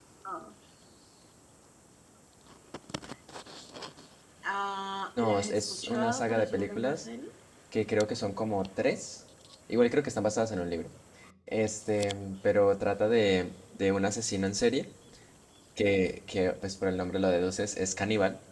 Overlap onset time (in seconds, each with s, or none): 5.2 s